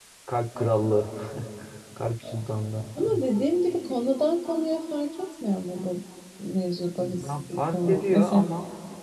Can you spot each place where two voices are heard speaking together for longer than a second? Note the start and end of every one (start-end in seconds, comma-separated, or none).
7.2-8.4